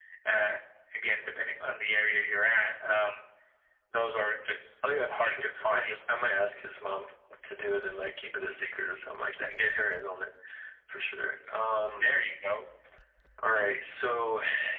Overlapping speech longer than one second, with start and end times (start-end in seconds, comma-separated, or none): 4.9-6.1